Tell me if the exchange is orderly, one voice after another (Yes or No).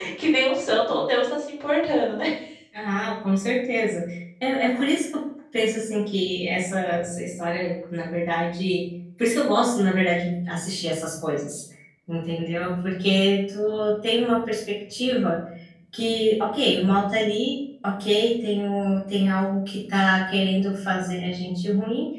Yes